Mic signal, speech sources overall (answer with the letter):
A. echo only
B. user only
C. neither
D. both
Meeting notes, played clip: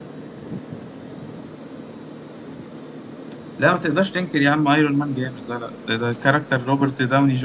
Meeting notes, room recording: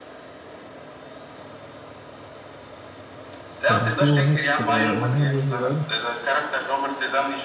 D